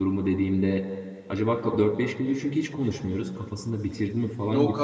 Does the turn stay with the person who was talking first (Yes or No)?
No